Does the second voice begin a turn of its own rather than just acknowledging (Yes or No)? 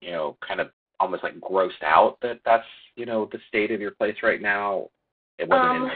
No